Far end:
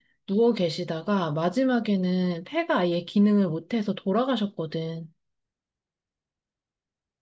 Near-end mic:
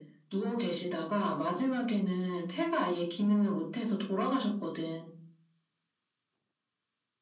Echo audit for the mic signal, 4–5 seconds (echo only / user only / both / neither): echo only